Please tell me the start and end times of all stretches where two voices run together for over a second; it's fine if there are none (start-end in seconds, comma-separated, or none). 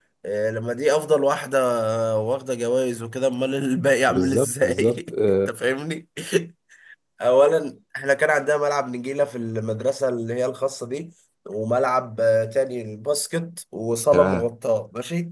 4.1-5.5